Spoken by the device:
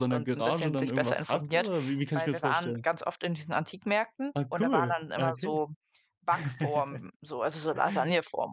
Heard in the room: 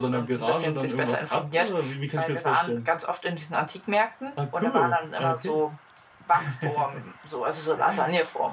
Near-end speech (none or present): none